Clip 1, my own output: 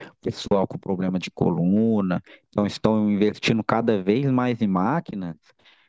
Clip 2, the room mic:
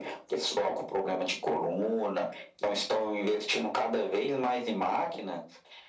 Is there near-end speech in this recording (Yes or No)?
No